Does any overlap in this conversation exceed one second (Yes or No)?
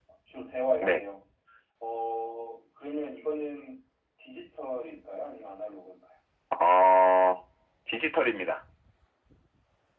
No